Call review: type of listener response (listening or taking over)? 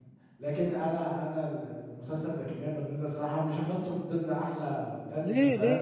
taking over